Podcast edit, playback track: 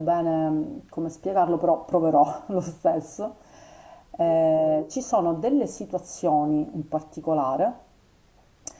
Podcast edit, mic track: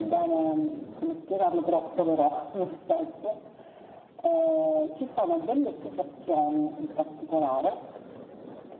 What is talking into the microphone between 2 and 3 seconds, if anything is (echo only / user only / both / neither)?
echo only